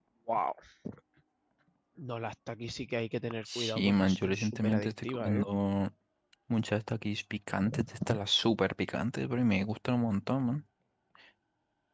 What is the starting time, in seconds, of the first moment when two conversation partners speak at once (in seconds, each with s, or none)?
3.5 s